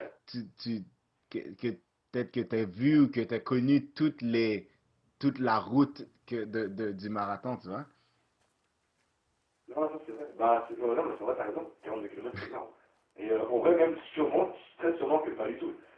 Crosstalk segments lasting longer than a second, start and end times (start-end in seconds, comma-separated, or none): none